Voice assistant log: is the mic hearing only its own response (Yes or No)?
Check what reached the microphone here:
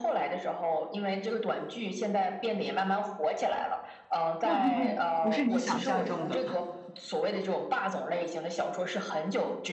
No